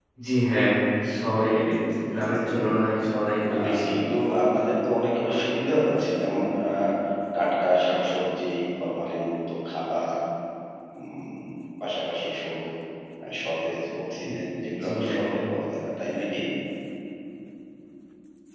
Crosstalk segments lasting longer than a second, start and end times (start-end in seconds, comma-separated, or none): none